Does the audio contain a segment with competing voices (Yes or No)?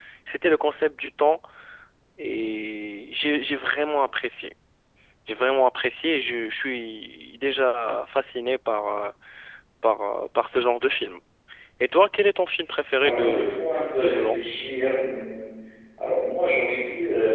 Yes